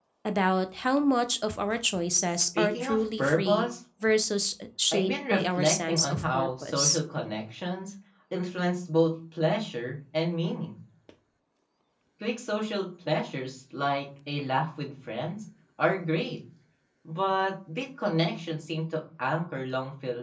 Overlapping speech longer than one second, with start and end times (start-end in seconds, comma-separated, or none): 2.3-3.7, 4.9-7.0